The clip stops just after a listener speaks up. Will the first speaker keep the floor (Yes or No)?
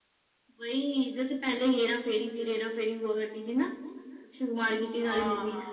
No